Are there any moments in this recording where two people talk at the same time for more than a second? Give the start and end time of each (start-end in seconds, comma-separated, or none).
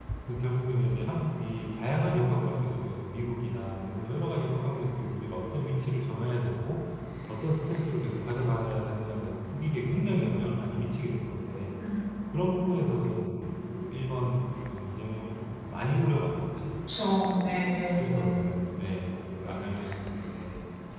none